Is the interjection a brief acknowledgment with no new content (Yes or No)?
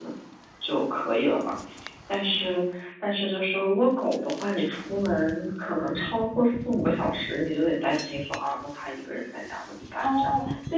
No